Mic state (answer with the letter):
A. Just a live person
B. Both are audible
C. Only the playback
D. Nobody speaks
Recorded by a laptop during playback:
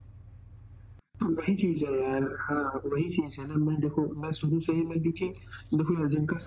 C